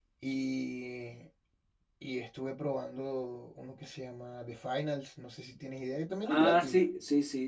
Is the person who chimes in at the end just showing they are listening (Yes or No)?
No